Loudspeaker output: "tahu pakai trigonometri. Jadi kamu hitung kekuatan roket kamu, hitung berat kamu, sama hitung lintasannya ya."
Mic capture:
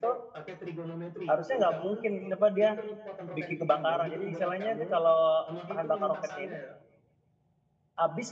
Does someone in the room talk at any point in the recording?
Yes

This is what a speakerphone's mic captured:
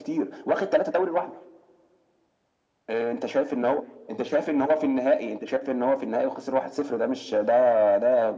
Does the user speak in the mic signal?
No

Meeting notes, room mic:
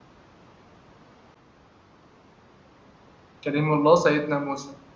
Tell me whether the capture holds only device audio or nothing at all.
No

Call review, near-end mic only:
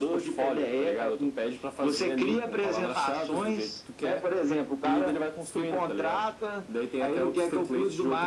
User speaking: No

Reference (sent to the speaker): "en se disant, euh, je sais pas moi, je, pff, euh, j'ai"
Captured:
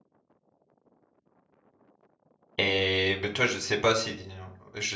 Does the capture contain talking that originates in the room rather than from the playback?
Yes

